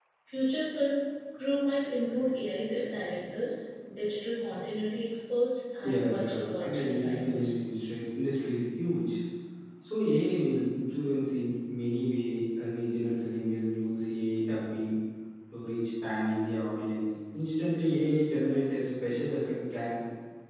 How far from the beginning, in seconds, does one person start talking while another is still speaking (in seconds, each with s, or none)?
5.8 s